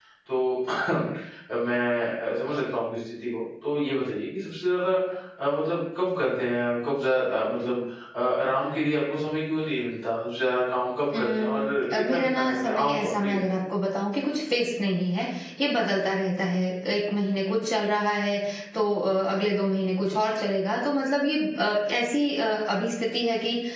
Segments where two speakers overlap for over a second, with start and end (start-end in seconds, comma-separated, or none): 11.2-13.4